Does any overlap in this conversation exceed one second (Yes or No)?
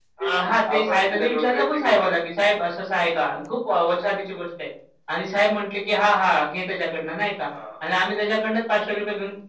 Yes